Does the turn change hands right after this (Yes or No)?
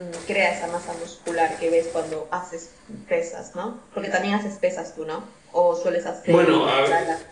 Yes